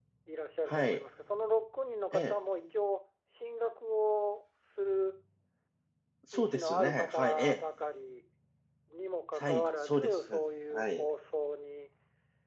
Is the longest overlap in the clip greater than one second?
Yes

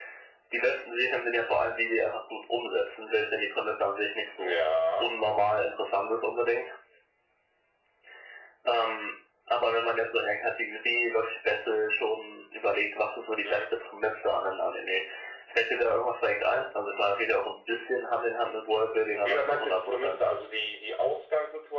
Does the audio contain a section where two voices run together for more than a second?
Yes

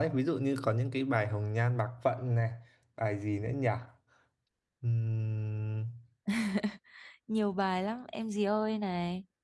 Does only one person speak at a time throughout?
Yes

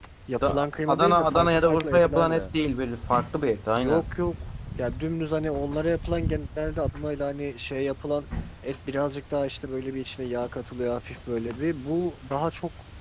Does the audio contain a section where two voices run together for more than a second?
Yes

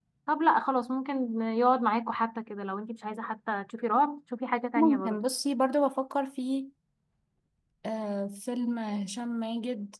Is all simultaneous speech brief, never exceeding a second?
Yes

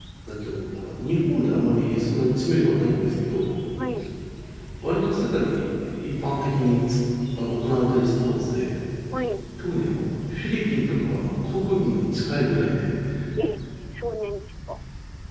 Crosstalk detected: No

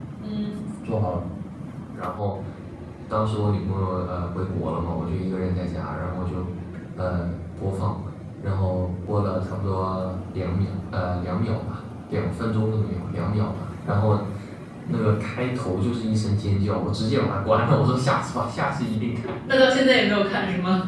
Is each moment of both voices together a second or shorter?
Yes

